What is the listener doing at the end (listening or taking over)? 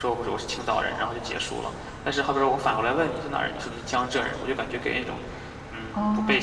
taking over